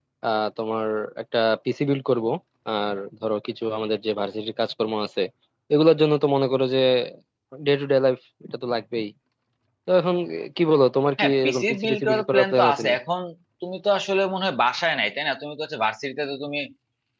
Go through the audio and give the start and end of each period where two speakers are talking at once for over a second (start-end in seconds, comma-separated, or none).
11.2-12.8